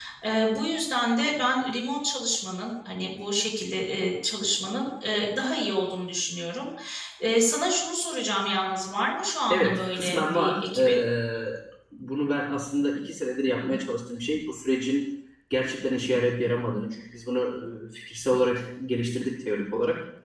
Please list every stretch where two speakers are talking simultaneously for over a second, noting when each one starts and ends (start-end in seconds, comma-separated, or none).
9.5-11.0